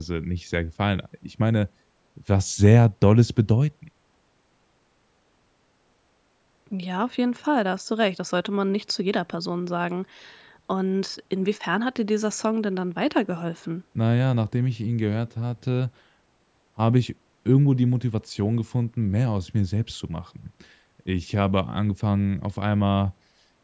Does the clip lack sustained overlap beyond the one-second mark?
Yes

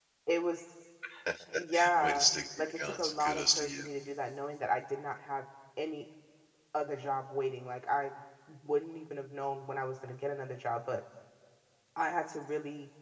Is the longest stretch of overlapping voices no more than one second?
No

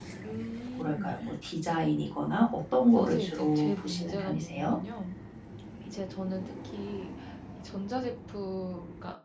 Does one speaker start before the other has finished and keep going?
Yes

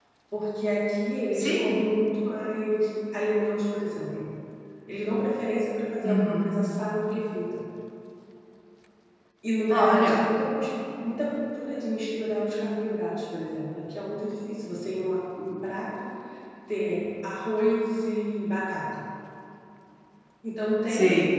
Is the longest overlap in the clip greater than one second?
No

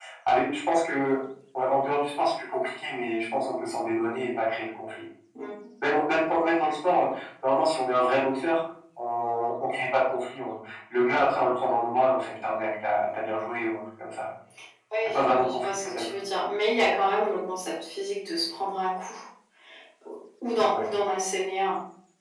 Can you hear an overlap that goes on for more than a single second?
Yes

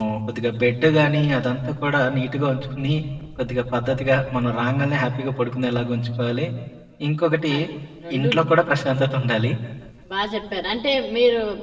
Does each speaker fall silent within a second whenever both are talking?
Yes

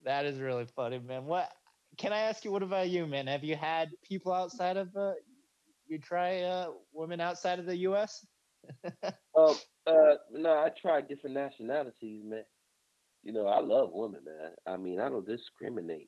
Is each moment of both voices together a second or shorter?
Yes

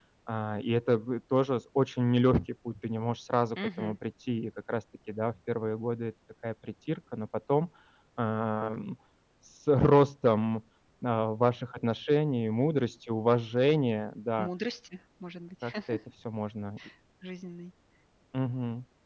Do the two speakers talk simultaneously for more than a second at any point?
No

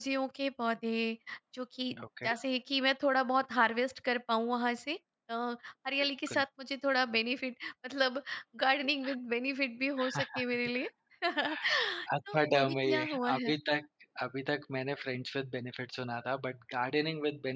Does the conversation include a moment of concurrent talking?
Yes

